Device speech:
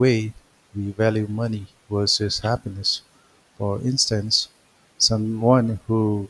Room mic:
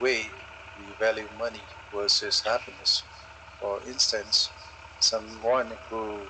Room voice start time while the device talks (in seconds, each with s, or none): none